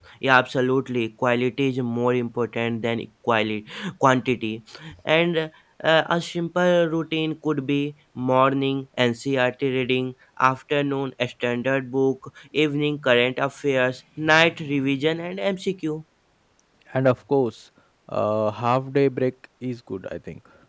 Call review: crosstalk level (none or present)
none